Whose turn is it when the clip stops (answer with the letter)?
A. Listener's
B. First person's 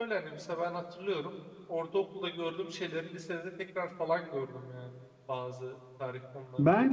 A